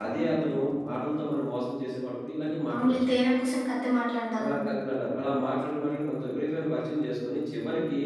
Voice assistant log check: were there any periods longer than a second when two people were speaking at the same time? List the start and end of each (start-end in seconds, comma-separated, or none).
none